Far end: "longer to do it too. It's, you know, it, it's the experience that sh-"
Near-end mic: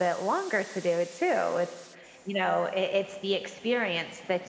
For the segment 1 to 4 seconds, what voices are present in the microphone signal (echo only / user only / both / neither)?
echo only